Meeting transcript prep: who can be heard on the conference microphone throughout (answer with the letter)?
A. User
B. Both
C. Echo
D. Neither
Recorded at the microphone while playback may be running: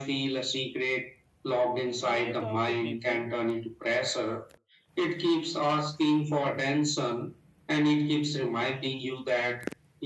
B